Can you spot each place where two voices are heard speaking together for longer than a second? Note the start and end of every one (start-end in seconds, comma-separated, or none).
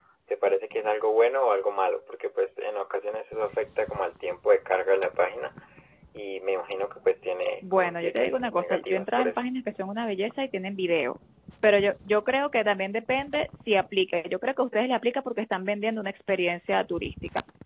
7.7-9.4